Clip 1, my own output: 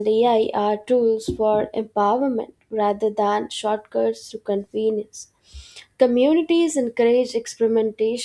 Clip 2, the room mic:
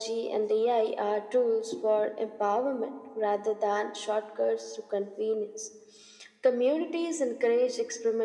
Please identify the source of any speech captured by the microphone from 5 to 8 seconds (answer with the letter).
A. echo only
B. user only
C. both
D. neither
A